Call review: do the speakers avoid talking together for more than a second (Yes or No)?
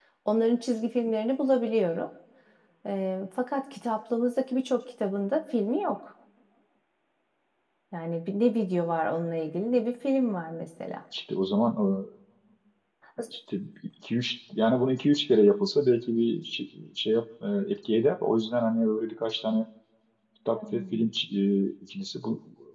Yes